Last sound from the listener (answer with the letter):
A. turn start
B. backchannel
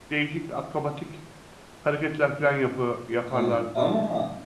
A